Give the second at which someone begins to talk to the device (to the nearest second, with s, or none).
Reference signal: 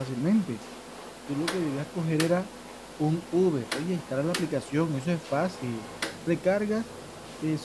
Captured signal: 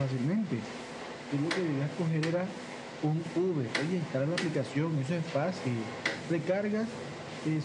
none